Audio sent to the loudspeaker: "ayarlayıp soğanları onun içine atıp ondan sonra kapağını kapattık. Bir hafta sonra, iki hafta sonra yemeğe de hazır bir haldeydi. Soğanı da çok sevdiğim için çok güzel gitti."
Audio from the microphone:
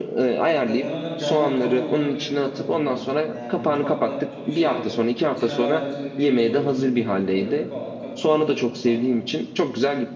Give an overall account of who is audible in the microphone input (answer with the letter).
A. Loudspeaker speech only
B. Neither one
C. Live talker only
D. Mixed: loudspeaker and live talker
D